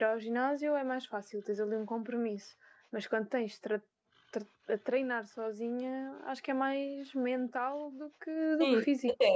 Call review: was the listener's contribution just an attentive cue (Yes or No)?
No